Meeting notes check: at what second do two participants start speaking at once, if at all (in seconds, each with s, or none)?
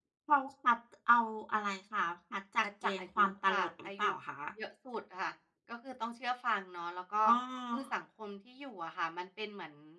2.6 s